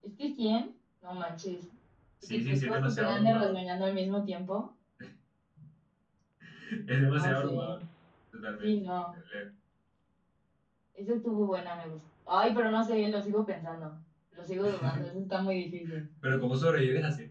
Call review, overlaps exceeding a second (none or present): present